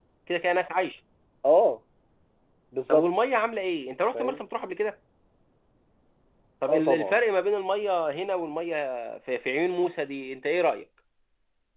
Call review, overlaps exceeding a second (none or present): none